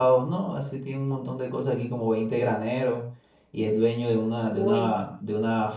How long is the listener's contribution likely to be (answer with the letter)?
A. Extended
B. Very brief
B